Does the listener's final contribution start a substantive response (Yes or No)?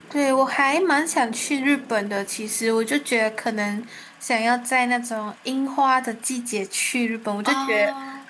No